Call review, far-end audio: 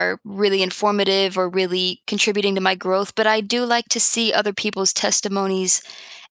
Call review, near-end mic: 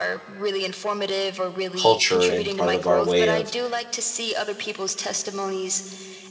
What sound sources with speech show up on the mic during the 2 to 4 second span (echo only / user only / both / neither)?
both